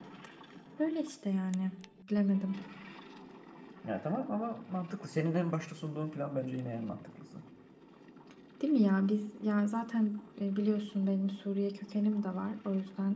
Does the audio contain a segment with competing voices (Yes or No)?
No